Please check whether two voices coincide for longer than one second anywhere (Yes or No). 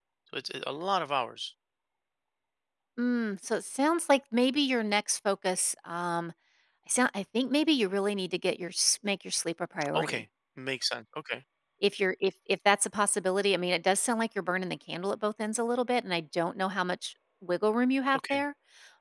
No